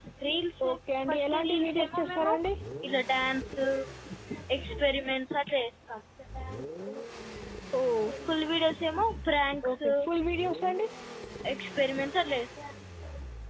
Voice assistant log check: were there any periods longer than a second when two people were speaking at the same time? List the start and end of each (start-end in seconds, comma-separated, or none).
1.1-2.3